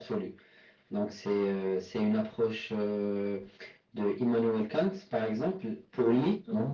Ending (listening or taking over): listening